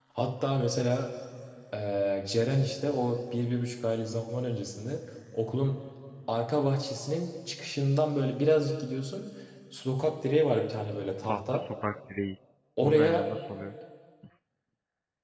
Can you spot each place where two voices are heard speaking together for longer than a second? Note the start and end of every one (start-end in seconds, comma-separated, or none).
none